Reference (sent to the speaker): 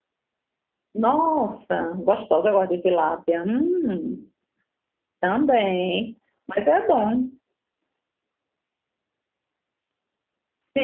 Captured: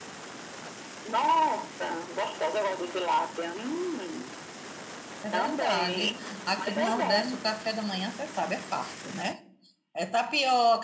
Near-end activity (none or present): present